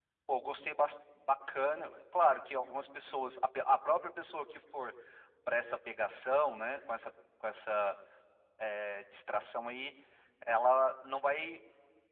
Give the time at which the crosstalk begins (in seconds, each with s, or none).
none